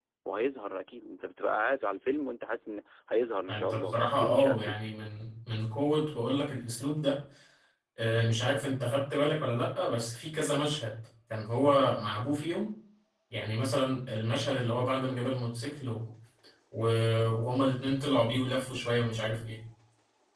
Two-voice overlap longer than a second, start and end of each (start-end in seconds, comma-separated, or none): 3.5-4.8